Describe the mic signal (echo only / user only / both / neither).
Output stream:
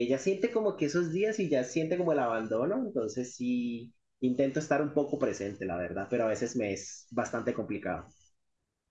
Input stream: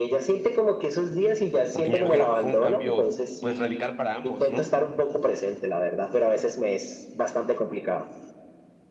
both